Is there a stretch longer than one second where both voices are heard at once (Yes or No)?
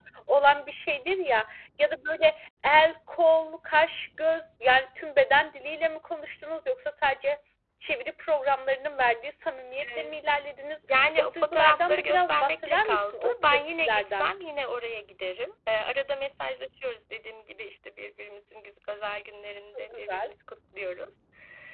Yes